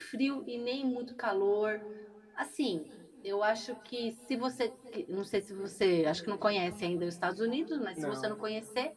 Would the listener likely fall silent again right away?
Yes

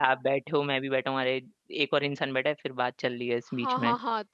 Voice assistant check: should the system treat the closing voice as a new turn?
Yes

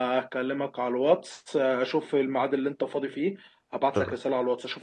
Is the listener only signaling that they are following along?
Yes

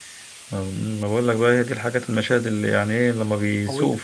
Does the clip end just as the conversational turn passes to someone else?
No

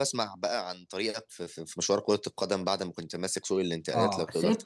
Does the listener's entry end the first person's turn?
Yes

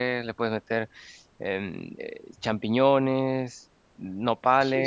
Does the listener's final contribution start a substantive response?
Yes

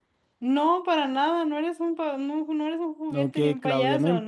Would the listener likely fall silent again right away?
No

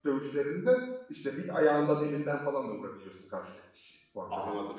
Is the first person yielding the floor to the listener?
Yes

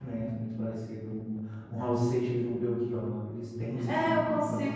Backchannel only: No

